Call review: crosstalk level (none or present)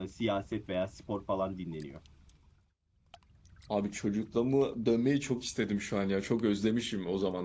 none